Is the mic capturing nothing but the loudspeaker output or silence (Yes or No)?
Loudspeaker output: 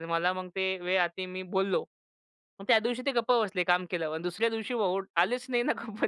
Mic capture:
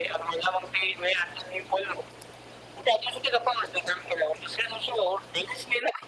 Yes